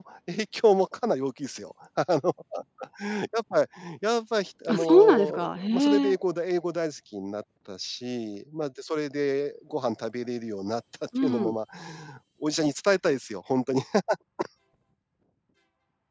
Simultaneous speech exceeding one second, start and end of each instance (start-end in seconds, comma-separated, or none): 4.7-6.2